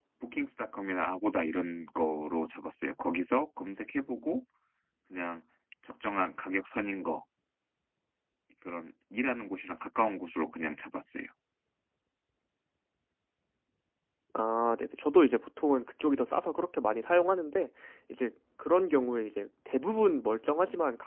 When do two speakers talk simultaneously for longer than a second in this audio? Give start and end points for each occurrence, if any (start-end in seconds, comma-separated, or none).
none